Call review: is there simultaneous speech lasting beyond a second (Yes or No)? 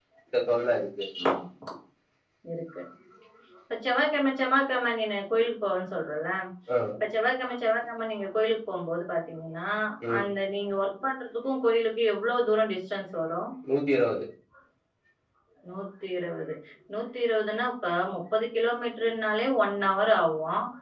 No